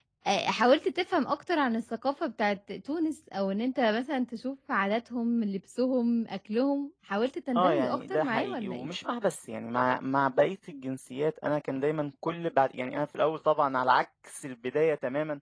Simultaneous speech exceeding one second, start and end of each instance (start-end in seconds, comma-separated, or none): 7.5-8.9